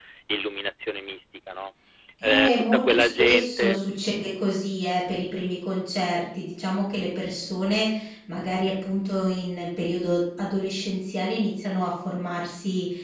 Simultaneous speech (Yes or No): Yes